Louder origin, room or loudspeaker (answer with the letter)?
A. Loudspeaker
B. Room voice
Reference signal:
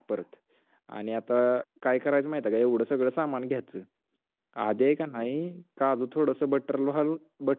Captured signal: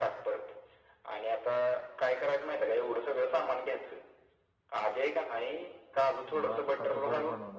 A